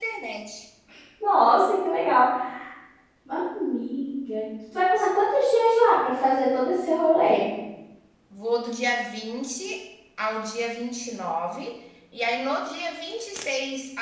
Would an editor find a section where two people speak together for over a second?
No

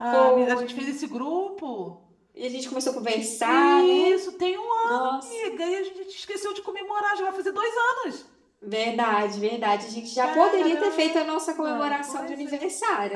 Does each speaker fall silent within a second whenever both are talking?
No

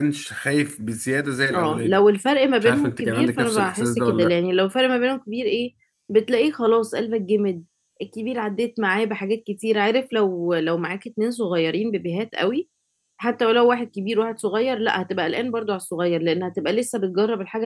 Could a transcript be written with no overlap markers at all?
No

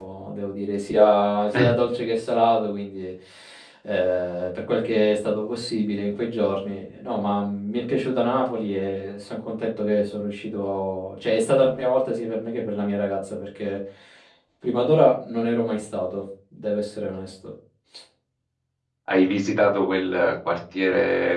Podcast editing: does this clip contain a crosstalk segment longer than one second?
No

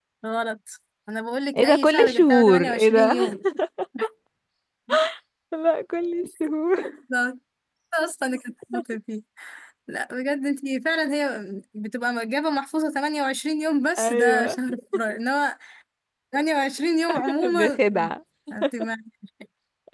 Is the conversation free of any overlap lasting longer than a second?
No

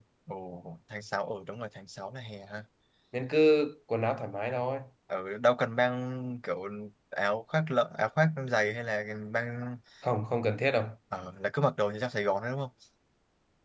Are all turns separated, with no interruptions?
Yes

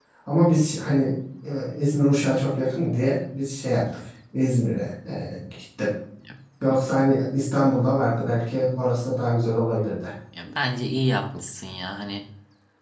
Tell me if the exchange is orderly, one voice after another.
Yes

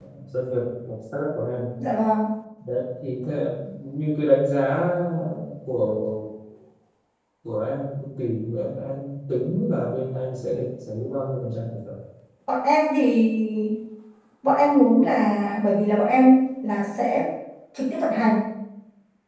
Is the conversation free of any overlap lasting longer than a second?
Yes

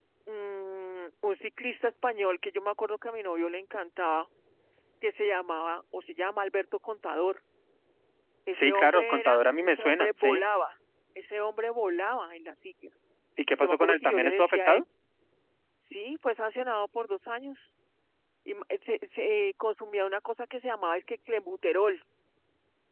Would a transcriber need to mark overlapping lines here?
Yes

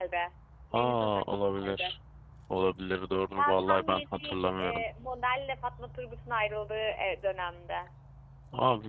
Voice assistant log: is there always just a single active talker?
No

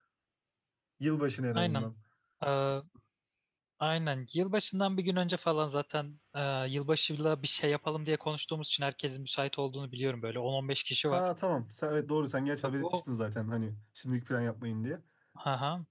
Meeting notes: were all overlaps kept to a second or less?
Yes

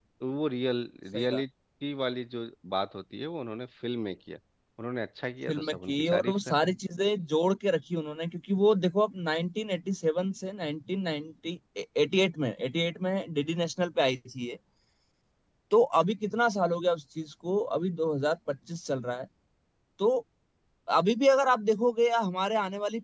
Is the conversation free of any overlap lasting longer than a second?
No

